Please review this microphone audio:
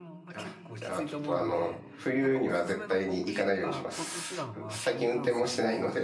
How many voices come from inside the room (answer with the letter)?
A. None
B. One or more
B